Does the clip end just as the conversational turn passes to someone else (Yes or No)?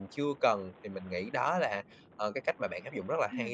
Yes